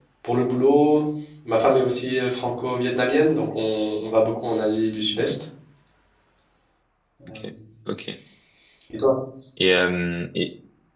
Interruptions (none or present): none